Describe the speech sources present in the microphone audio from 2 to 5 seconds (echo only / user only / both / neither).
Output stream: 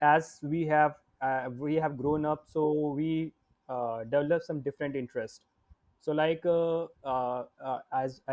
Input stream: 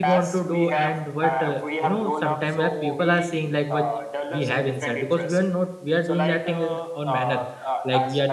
both